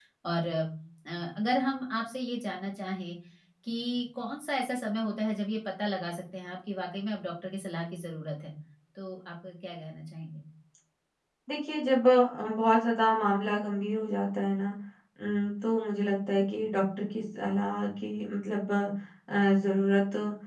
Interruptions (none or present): none